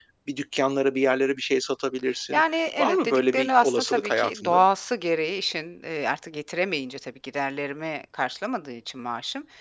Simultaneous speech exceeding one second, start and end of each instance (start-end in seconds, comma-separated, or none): 2.8-4.6